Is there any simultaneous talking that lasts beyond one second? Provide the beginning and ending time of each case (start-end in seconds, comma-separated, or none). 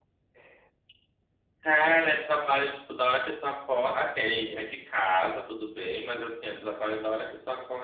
none